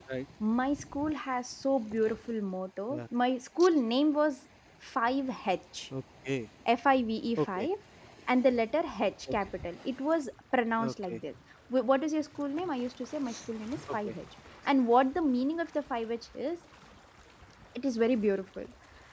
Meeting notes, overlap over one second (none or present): none